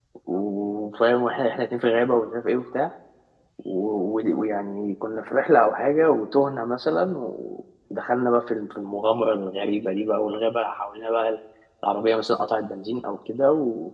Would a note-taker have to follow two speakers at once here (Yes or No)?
No